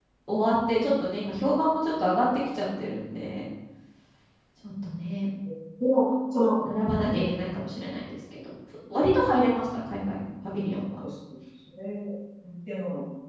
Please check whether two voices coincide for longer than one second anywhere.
No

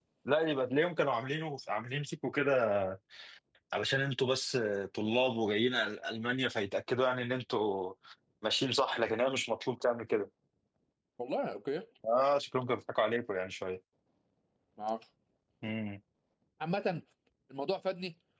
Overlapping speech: No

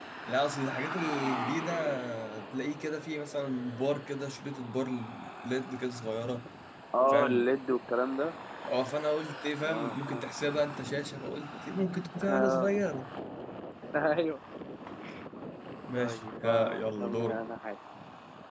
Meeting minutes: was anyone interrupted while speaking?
Yes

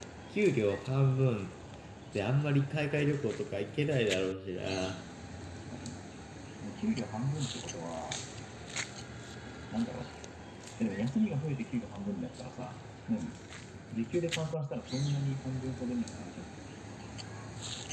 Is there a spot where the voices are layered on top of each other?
No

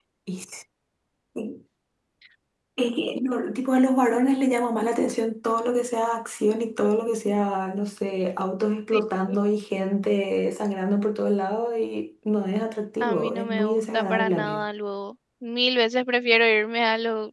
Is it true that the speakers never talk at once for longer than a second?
No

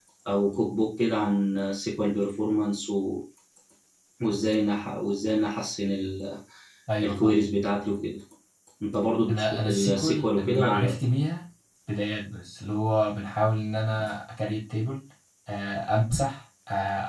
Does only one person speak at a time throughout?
No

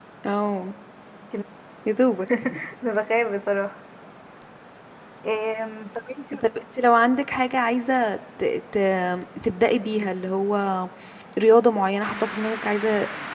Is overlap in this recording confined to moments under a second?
Yes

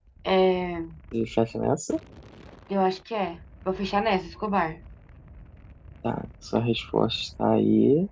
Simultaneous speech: No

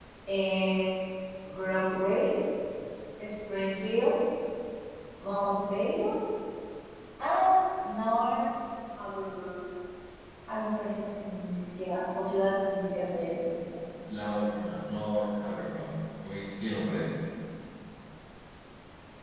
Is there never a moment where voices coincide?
Yes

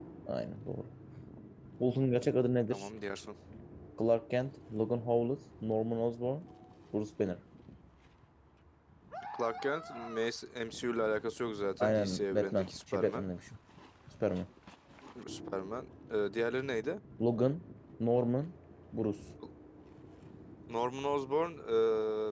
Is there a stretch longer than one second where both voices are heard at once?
Yes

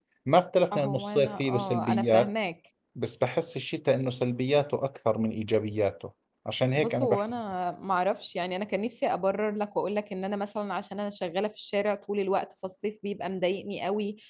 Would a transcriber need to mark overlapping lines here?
Yes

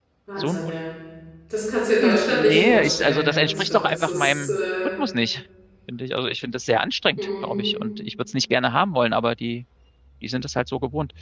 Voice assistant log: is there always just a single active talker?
No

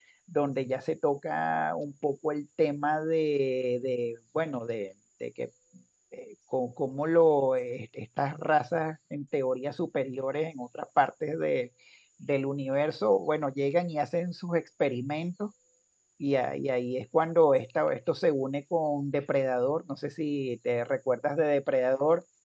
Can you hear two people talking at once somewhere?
No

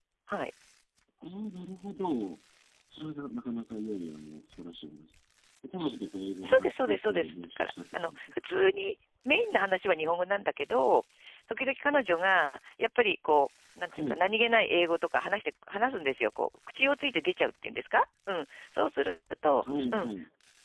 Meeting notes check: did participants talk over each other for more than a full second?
Yes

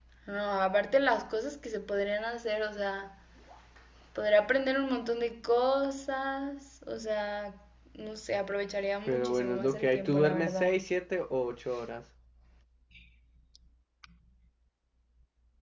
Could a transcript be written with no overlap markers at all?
No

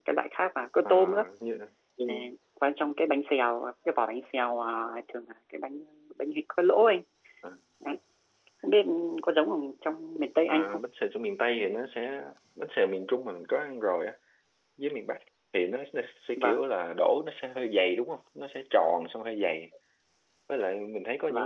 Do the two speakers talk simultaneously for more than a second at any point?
No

